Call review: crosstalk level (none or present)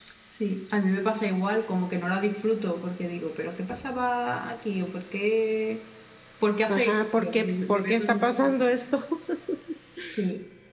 present